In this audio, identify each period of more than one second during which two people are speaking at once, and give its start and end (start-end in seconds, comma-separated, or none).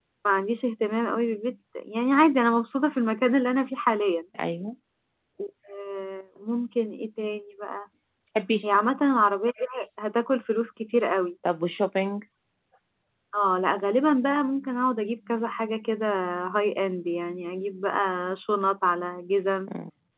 none